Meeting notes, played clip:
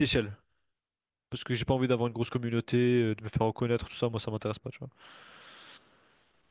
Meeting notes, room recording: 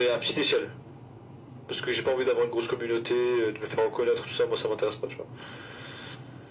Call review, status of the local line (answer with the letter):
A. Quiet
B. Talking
A